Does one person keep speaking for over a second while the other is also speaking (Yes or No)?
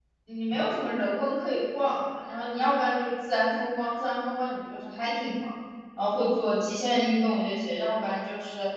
No